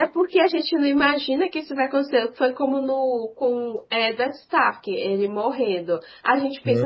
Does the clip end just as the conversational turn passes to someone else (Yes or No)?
No